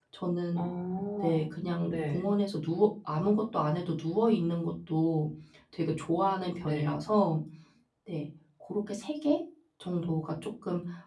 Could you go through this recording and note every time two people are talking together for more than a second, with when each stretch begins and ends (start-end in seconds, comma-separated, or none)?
none